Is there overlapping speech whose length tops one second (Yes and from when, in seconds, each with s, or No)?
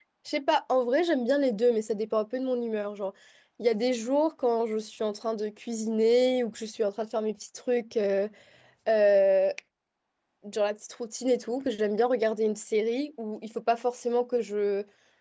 No